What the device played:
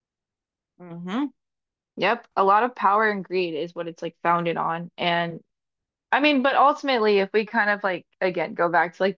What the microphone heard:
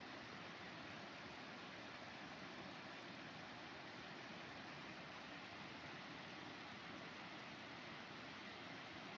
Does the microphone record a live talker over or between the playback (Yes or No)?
No